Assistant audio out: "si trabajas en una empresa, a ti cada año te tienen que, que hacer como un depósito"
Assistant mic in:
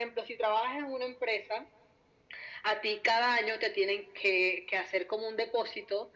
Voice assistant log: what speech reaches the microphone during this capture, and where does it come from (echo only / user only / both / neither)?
echo only